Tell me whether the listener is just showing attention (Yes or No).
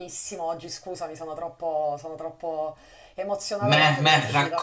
No